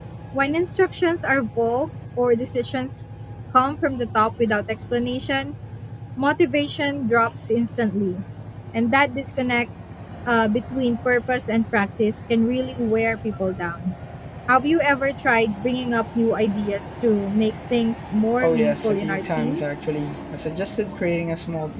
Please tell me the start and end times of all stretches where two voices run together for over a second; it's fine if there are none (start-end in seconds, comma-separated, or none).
18.4-19.6